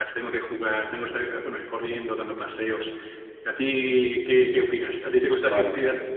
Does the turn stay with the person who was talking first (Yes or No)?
Yes